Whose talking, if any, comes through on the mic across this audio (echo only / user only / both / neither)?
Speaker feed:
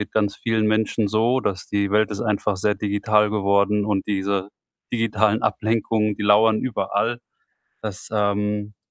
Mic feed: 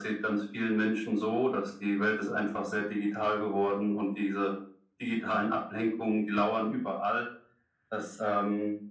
echo only